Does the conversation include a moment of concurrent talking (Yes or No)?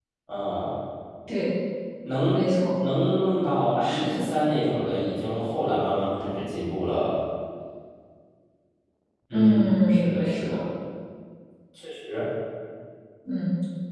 Yes